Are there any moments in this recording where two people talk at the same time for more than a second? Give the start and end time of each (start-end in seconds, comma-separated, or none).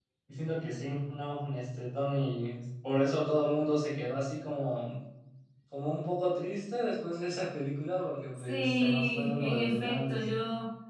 8.5-10.2